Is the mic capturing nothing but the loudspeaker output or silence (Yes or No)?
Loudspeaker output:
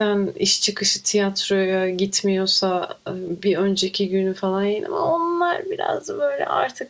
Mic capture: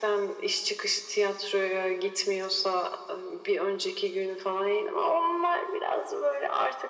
Yes